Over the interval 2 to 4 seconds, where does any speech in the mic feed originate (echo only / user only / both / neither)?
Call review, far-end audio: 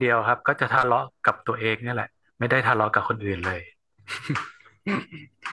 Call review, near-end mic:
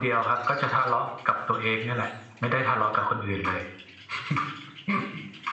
echo only